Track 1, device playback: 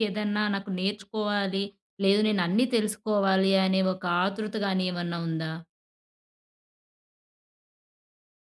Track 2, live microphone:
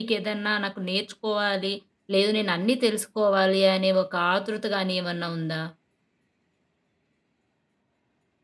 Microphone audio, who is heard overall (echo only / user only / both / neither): echo only